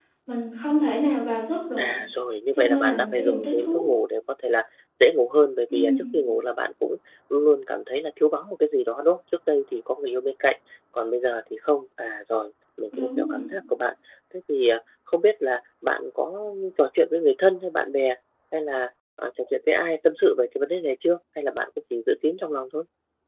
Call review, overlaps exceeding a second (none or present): present